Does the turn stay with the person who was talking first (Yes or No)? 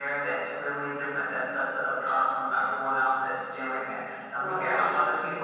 Yes